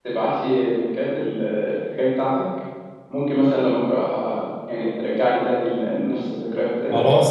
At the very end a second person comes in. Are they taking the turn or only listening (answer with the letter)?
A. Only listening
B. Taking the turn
B